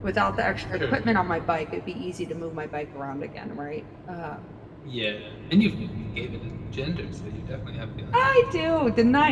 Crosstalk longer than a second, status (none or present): none